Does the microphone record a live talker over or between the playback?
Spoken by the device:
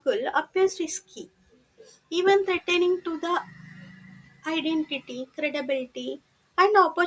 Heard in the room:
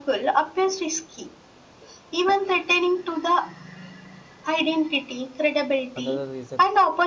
Yes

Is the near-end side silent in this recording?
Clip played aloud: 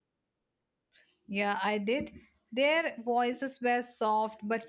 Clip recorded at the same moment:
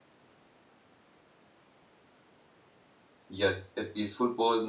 No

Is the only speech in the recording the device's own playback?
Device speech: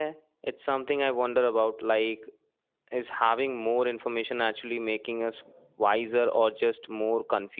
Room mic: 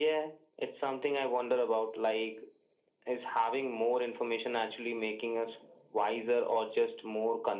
Yes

